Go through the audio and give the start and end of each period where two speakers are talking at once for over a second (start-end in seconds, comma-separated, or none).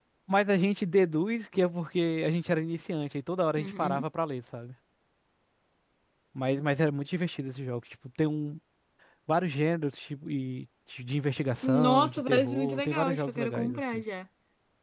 11.6-14.0